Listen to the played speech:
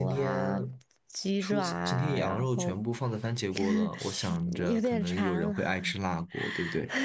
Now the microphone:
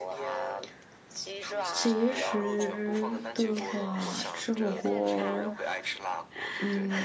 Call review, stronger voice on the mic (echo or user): user